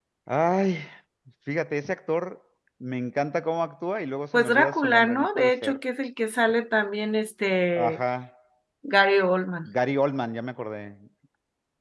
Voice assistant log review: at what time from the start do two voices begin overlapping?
4.3 s

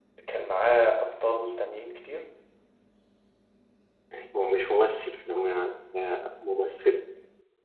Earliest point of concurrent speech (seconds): none

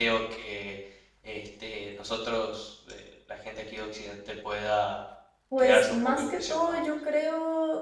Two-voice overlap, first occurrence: 5.6 s

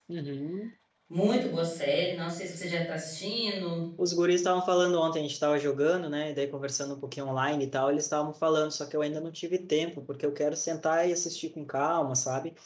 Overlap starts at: none

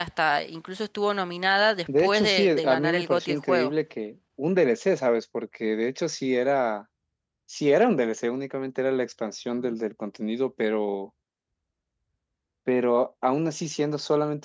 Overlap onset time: 1.9 s

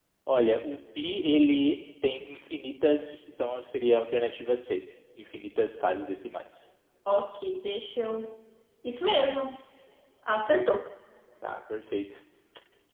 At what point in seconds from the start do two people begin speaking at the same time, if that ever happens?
none

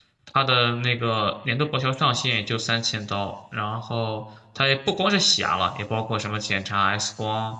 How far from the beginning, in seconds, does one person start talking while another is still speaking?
none

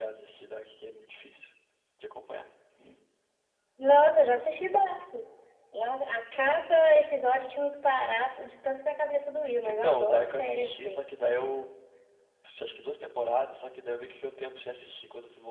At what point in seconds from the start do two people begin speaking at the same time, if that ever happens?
9.6 s

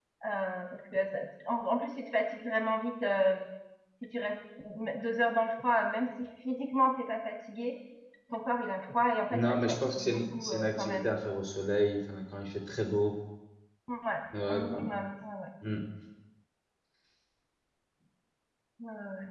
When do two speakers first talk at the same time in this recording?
9.3 s

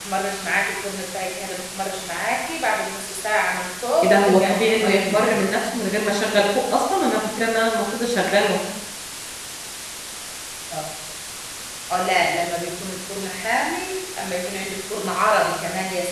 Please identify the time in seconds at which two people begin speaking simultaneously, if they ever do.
4.0 s

